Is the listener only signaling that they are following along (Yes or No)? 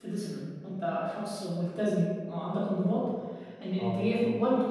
Yes